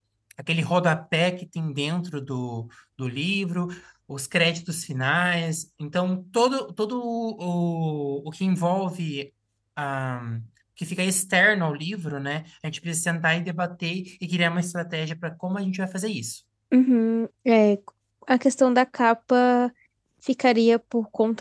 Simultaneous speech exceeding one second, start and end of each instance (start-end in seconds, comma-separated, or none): none